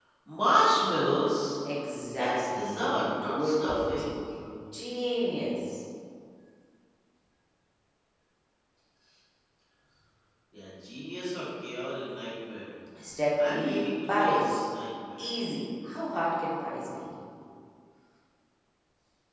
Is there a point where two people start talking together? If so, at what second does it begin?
2.2 s

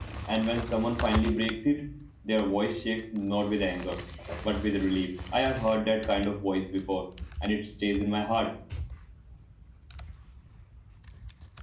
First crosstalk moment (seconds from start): none

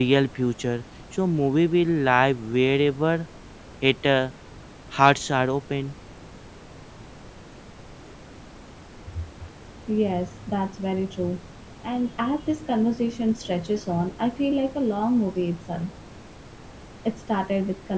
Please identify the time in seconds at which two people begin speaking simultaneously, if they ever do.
none

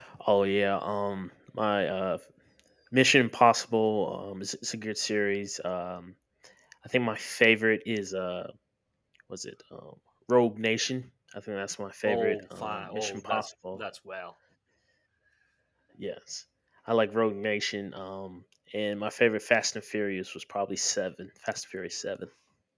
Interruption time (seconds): 12.0 s

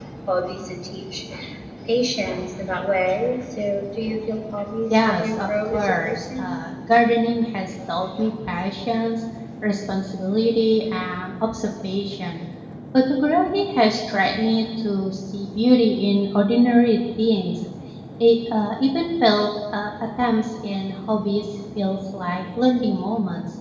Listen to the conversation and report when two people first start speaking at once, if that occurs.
4.9 s

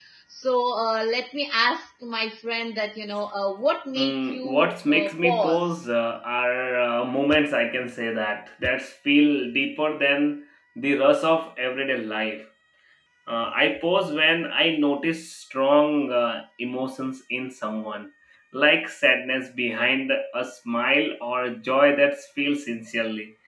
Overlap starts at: 4.0 s

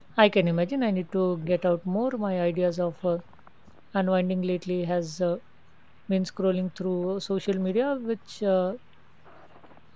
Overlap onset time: none

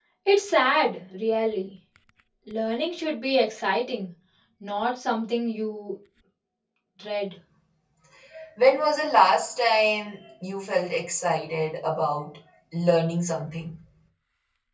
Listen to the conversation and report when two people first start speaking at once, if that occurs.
none

